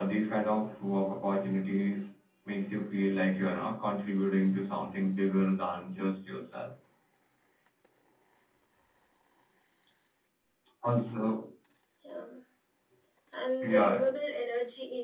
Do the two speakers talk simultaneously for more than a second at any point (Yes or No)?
No